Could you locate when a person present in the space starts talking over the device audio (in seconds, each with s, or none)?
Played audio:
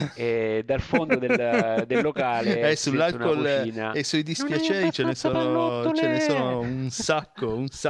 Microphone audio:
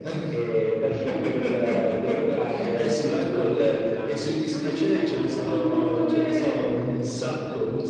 none